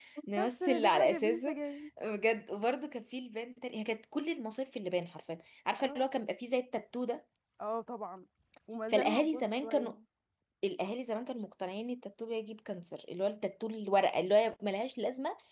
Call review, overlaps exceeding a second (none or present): present